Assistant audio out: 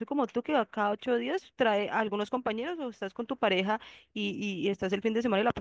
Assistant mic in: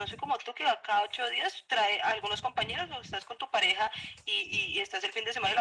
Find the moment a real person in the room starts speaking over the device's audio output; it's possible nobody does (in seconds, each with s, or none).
none